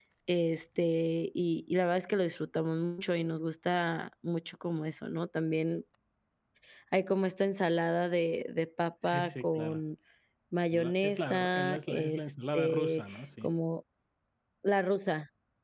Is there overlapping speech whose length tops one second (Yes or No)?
Yes